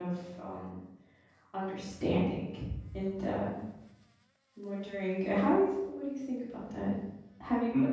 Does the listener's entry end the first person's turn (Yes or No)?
No